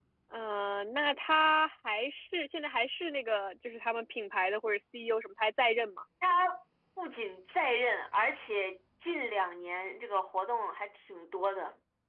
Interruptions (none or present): none